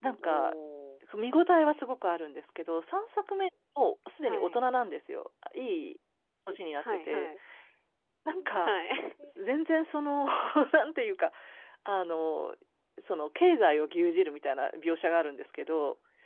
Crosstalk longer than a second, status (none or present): none